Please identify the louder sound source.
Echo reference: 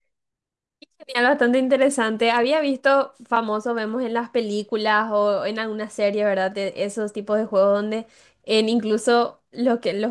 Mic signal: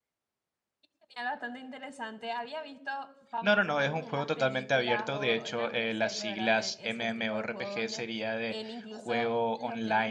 user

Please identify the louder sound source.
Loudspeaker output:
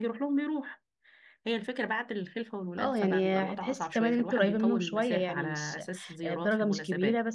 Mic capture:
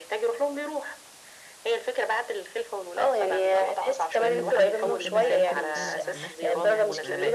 echo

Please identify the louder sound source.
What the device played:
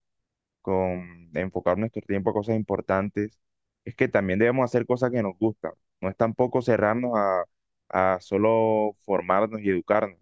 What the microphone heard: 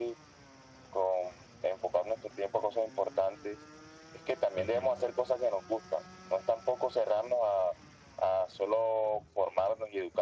echo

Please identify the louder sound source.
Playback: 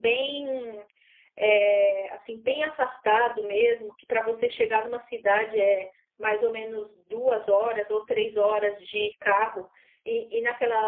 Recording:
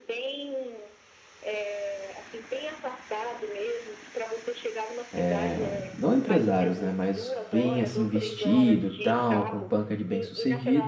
user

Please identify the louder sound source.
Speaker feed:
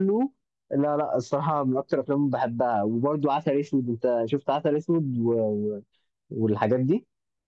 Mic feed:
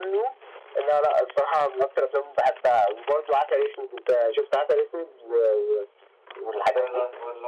echo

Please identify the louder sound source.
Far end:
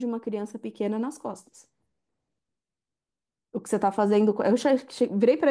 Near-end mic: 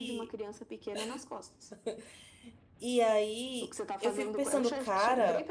user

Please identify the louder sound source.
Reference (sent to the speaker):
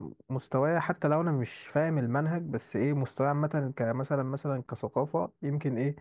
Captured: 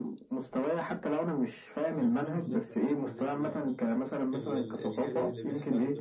echo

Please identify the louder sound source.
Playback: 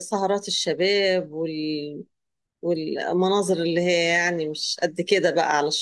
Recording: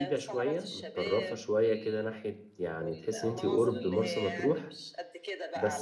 user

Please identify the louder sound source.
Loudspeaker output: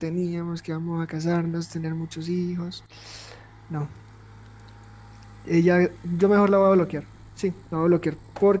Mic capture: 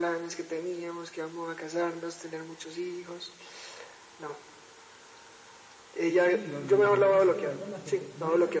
echo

